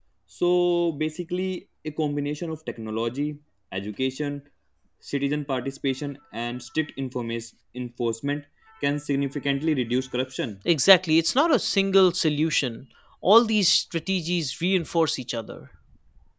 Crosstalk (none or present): none